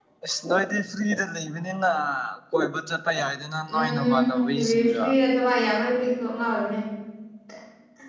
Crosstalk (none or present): present